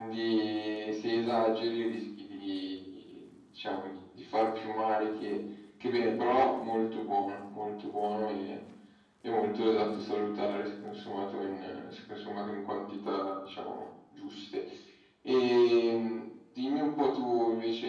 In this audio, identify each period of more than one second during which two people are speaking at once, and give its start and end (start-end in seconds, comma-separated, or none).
none